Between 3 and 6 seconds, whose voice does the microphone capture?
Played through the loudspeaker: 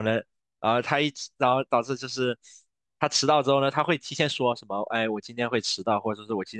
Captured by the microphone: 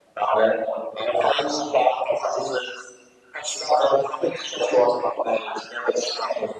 echo only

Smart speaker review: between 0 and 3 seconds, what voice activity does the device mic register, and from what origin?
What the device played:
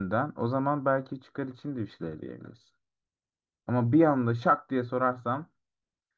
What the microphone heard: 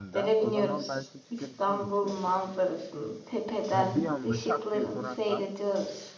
both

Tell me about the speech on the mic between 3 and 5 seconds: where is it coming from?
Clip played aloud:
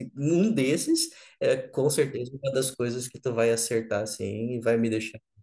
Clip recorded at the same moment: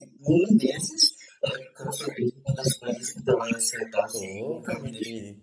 both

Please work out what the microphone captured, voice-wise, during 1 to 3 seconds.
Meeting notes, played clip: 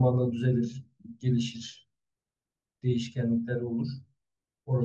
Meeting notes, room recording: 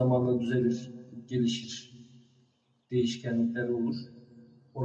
echo only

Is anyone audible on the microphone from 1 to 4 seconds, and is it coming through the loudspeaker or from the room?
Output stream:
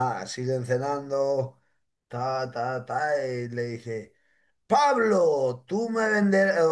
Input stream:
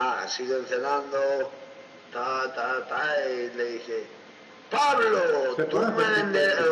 echo only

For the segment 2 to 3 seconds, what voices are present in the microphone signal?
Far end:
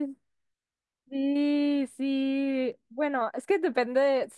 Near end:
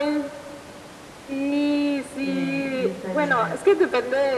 both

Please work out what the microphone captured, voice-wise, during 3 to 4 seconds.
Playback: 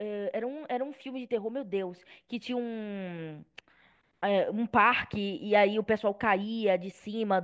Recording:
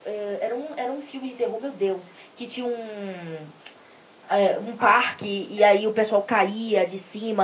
echo only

